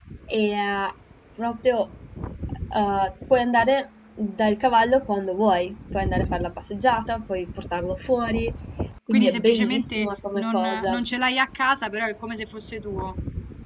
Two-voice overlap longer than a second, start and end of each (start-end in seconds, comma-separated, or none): 9.1-11.0